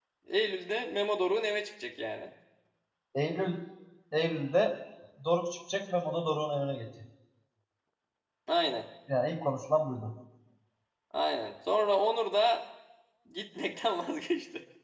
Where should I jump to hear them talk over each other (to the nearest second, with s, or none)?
none